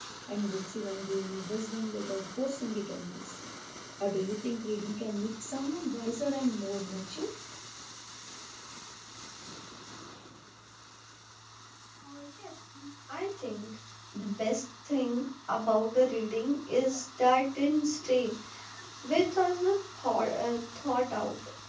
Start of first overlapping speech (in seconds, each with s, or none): none